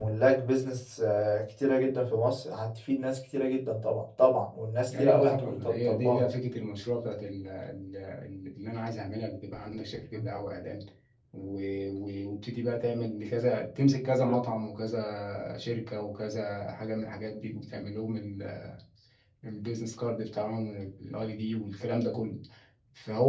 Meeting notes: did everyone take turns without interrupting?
No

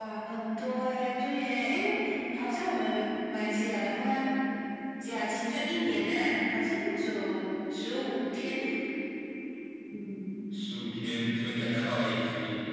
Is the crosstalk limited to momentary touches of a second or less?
Yes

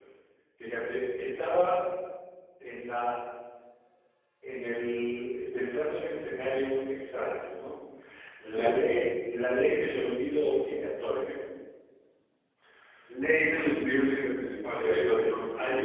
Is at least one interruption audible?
Yes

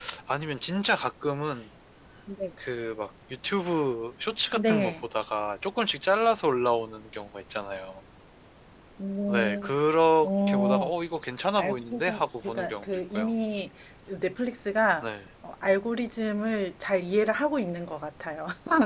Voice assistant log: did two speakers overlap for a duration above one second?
Yes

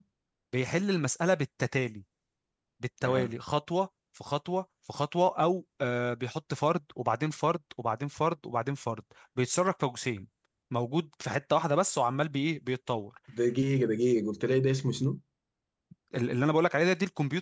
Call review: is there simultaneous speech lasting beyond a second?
No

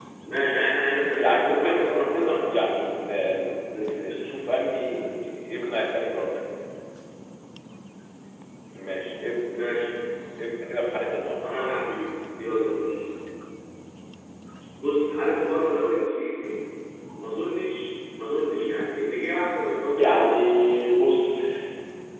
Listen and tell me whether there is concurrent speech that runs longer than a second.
Yes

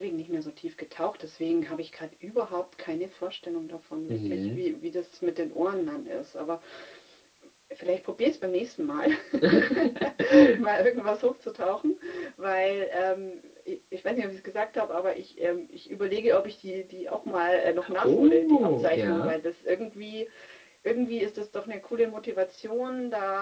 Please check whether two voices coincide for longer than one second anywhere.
Yes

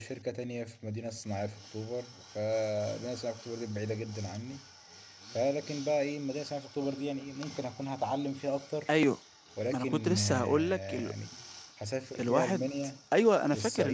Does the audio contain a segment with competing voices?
Yes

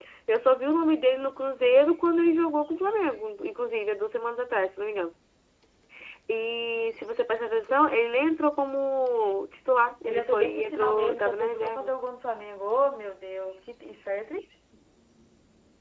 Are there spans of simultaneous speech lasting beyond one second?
Yes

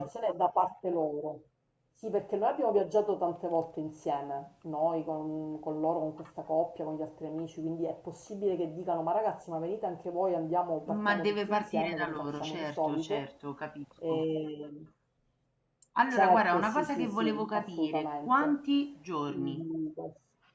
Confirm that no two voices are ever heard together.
No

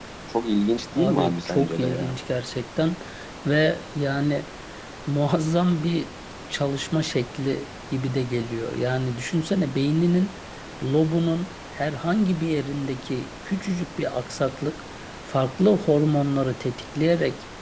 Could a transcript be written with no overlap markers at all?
No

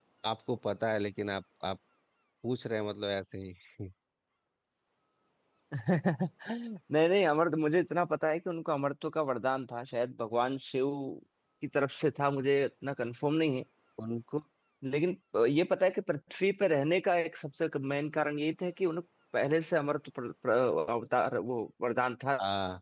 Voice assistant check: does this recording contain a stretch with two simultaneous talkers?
No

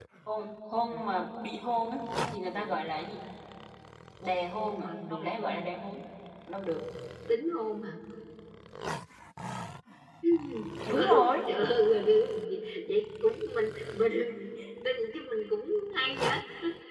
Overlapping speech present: Yes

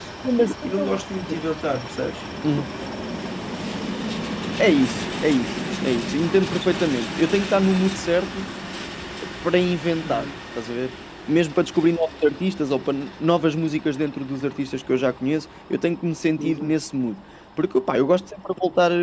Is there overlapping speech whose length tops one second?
No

